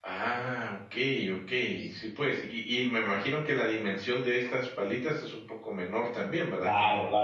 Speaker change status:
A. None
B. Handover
B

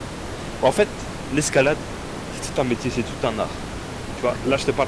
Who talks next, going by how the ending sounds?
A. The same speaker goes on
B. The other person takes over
A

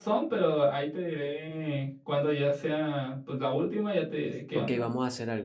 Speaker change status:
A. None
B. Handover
B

